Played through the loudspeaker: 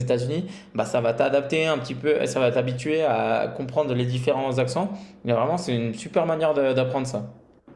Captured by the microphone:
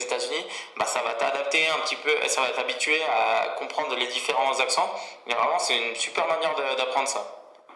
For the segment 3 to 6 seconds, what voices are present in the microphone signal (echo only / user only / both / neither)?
echo only